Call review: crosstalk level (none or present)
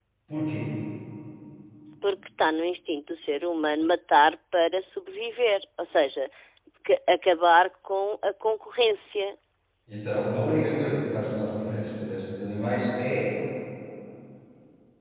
none